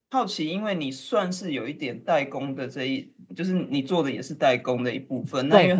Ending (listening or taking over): listening